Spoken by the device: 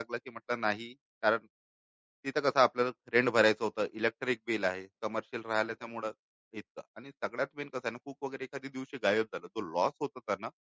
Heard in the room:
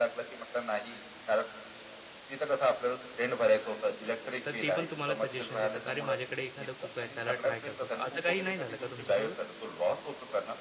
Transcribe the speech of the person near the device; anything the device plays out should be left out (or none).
तर ते पण तुम्हाला सजेशन देतात, "अरे, माझ्याकडे एखादा कुक आहे, त्याला ट्राय करतो का?" असं काही नाही झालं का तुमच्यासोबत?